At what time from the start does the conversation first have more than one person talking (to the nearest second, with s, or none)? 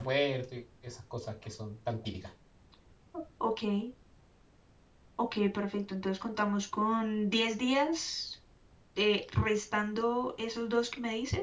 none